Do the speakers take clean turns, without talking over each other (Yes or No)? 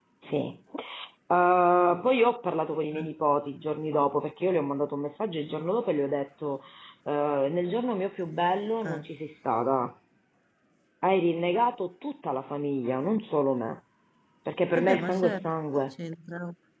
No